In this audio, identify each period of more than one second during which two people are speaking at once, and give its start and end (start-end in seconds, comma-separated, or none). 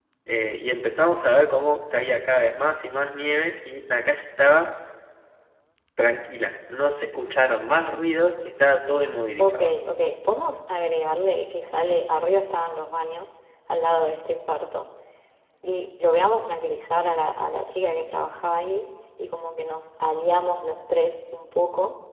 none